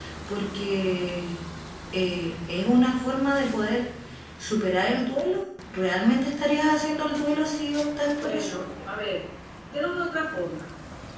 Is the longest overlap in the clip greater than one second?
No

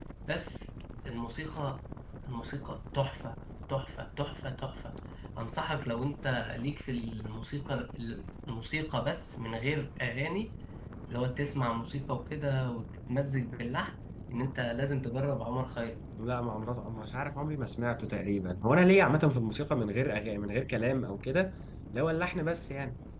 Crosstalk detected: No

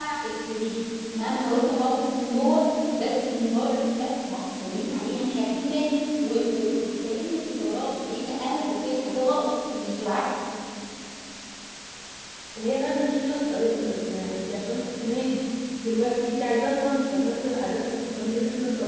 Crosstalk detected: No

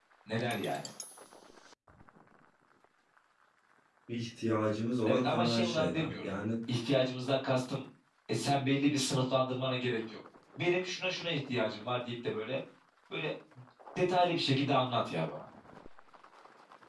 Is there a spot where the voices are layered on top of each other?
Yes, from 5.1 s

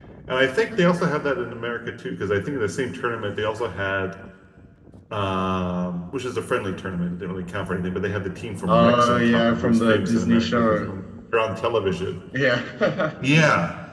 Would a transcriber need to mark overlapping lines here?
Yes, from 8.7 s

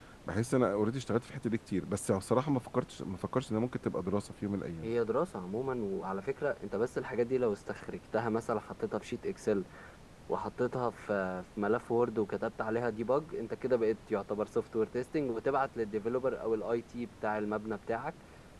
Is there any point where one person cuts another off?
No

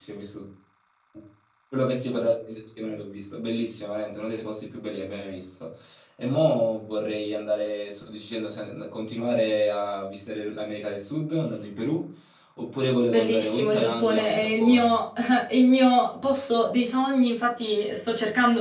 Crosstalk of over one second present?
Yes, from 13.1 s

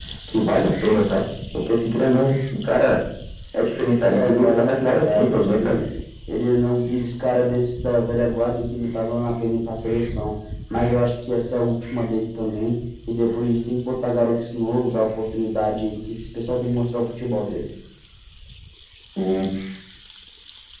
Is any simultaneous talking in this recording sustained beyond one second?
Yes, from 4.1 s

